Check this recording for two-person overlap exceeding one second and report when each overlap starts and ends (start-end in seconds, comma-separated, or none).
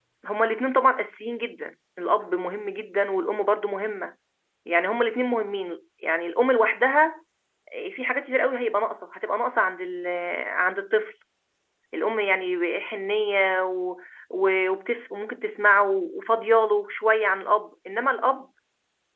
none